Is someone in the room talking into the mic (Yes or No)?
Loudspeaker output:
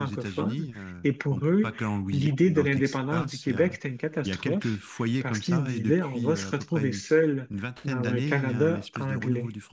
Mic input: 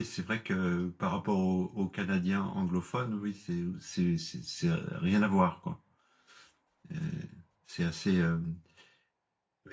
Yes